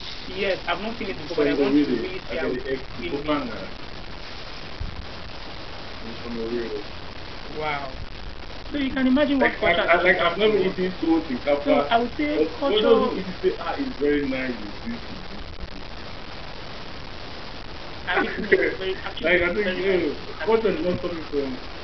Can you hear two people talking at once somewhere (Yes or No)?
Yes